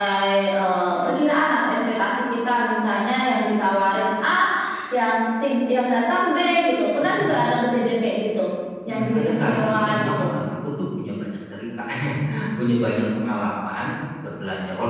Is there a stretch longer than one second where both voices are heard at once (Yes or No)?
Yes